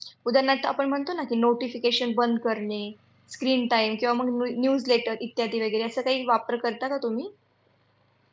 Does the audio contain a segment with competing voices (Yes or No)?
No